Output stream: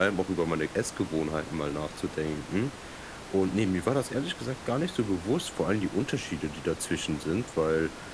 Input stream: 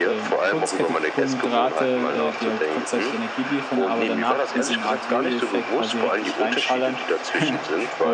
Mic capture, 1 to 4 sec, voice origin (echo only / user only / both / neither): both